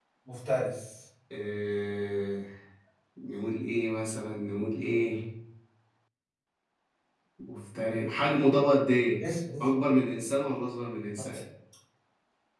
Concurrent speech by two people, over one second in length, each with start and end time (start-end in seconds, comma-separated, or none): none